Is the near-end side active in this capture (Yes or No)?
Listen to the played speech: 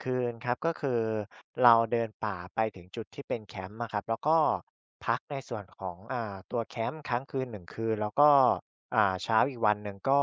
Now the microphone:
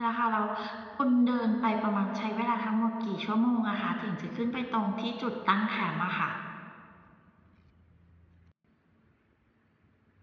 Yes